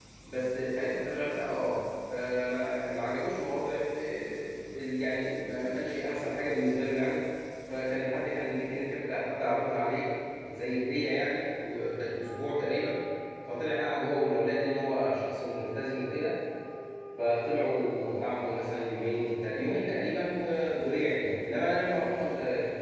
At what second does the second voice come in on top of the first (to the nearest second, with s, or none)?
none